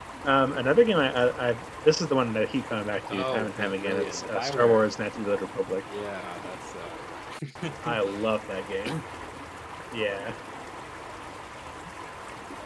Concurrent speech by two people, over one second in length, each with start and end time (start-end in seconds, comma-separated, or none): 3.1-4.8